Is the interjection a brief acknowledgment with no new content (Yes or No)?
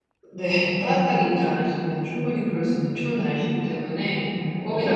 Yes